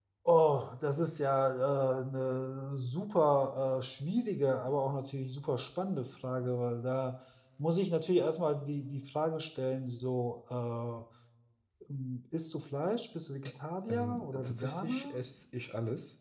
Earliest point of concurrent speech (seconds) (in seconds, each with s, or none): 13.9 s